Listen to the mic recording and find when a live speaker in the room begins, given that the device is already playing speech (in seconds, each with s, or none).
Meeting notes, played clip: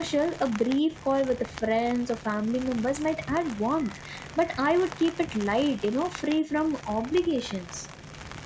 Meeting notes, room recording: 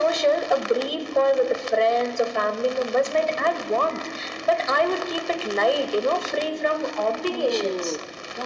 7.3 s